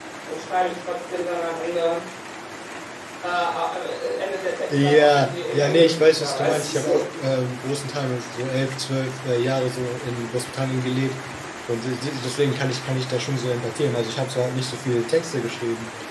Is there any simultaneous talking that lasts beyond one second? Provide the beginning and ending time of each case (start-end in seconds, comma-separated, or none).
4.7-7.0